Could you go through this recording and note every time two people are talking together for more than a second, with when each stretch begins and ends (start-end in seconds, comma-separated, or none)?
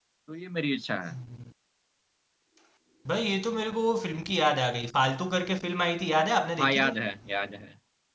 none